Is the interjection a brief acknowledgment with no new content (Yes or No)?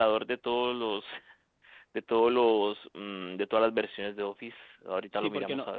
No